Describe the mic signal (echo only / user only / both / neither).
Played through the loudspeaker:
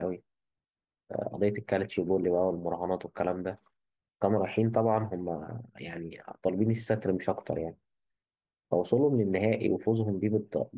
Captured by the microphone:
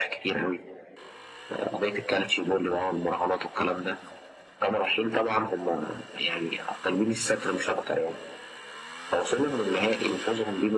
echo only